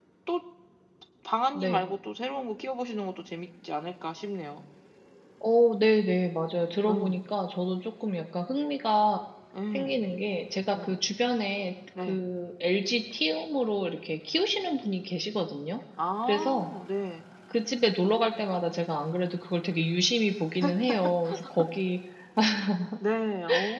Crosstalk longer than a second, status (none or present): none